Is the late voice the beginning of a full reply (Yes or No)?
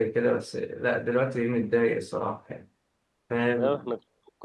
Yes